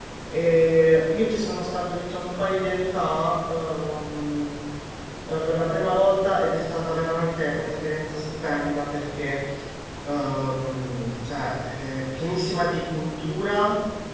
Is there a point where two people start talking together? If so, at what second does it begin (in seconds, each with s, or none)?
none